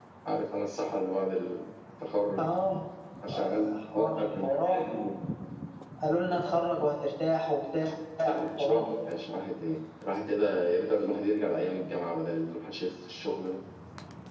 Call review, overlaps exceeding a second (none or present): present